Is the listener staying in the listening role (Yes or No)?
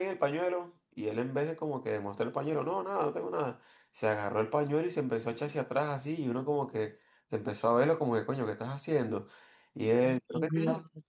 Yes